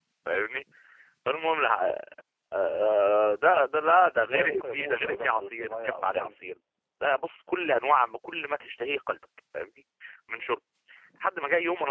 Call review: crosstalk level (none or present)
present